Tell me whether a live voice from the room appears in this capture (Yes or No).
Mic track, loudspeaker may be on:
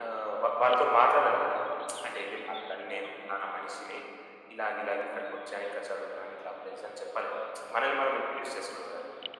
No